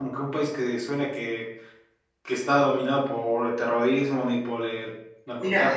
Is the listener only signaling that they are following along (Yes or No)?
No